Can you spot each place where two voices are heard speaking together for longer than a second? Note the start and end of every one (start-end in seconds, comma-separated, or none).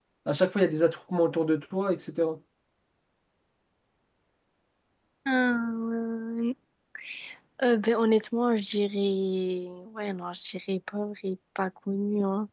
none